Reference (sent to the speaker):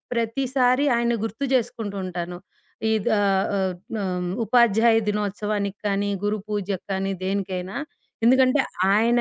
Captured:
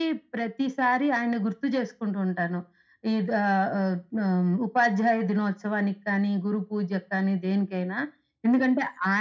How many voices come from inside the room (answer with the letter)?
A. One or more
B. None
B